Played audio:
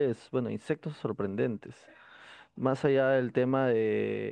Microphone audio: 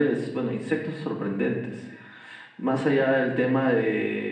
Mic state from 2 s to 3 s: echo only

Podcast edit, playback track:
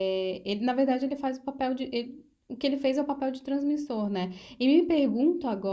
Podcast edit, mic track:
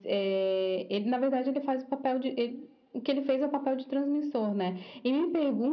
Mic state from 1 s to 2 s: echo only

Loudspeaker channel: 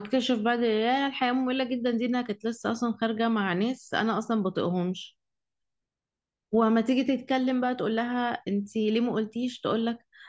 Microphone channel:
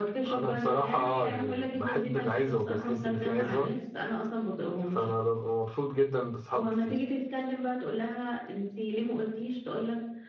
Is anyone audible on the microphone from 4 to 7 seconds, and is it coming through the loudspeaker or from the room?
both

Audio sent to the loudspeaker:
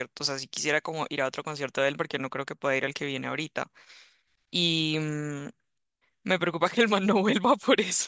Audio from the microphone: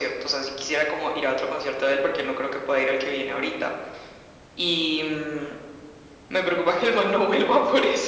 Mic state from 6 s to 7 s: echo only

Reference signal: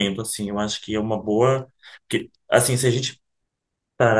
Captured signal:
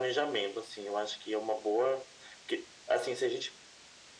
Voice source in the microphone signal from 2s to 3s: echo only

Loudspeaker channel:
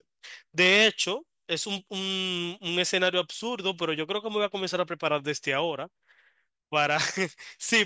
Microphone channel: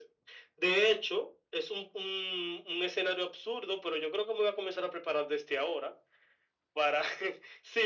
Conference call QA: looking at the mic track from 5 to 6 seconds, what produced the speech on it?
echo only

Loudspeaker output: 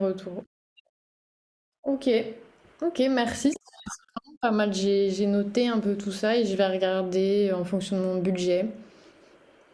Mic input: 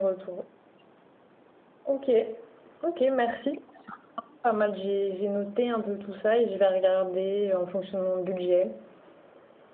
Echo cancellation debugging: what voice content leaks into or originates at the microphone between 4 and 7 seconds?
echo only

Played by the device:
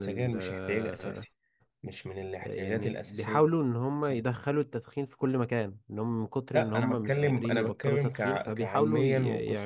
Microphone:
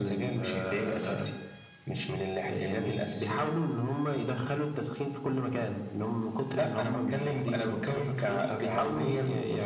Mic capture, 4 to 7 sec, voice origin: echo only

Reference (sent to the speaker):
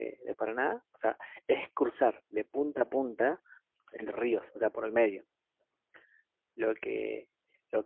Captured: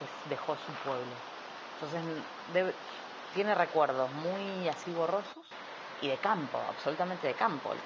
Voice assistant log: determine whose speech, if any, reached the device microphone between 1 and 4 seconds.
user only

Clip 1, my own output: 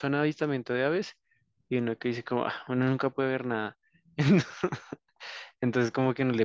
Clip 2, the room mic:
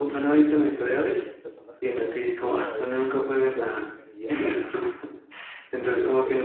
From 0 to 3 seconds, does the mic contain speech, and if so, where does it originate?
both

